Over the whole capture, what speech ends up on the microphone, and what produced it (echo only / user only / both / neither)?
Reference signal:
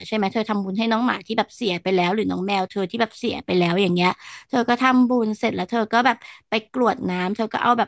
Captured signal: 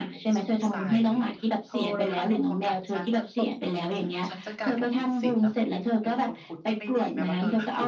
both